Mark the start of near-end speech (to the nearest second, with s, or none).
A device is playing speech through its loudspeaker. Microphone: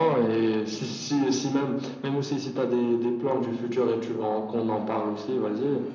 none